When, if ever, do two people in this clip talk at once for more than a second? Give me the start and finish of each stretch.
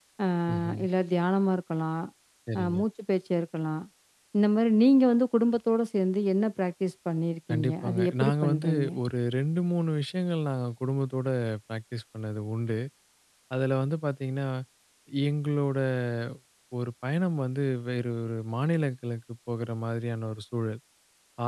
7.5-8.9

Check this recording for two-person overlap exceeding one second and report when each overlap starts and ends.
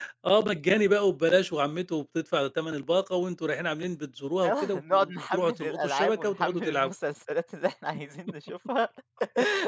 4.5-6.9

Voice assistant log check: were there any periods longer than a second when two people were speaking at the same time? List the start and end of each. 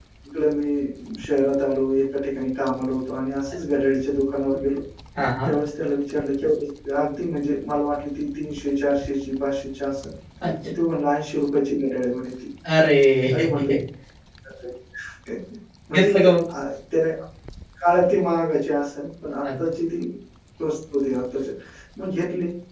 none

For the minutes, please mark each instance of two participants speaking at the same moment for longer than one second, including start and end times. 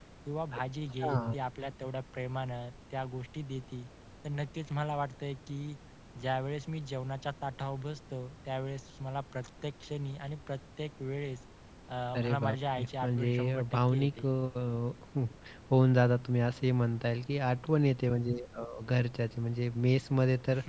12.2-14.3

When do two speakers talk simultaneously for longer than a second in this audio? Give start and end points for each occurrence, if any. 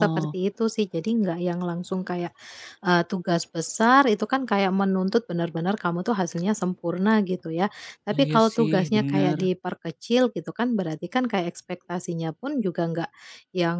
8.2-9.4

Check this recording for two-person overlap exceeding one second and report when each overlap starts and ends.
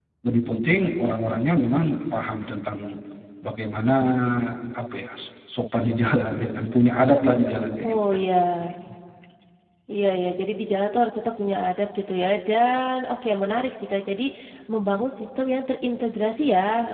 none

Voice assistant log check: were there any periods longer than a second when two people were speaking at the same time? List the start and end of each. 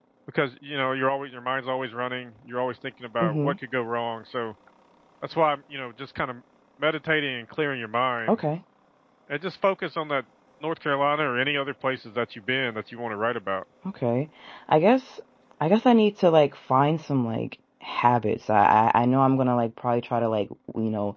none

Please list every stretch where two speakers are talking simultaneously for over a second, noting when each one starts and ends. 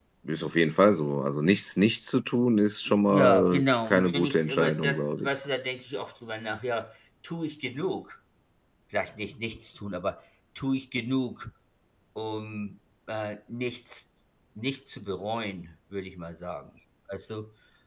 3.1-5.3

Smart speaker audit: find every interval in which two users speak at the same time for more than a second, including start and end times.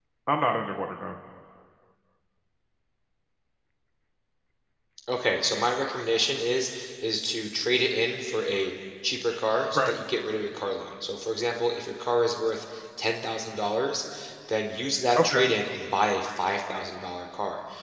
none

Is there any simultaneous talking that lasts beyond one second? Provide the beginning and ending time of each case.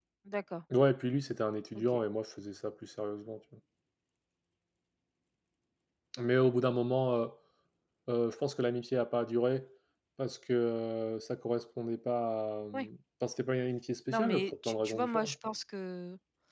14.1-15.3

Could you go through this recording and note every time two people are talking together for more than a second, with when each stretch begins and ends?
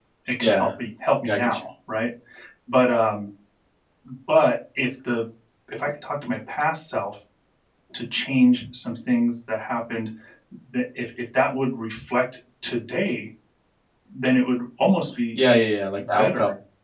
none

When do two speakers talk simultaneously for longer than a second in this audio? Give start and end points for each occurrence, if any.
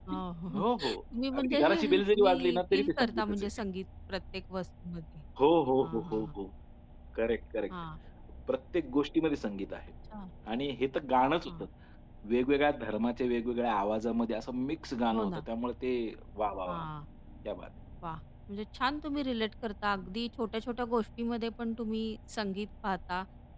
1.4-3.5

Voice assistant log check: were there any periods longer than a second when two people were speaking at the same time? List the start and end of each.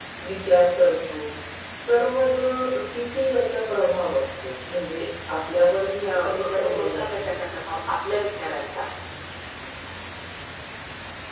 6.0-7.3

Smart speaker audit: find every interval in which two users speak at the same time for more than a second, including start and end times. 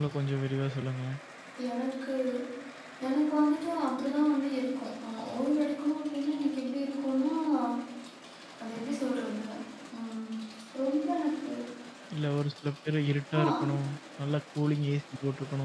none

